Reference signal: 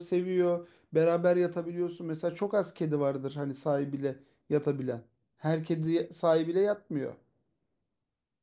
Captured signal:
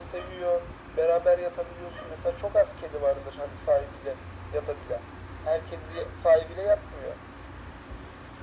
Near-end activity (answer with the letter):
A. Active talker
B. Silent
B